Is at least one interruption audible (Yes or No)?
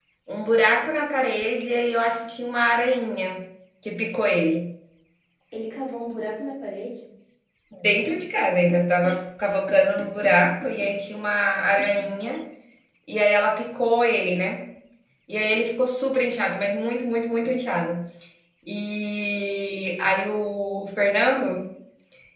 No